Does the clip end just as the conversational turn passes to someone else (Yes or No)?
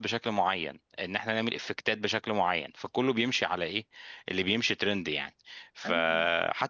No